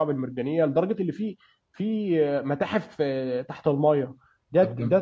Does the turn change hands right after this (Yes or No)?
No